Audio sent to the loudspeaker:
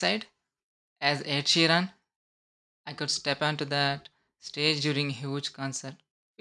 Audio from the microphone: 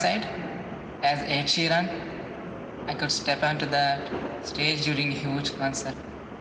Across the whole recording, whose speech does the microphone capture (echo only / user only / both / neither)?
echo only